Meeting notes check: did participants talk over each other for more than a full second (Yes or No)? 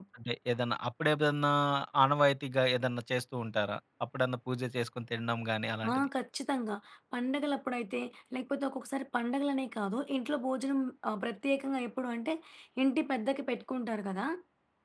No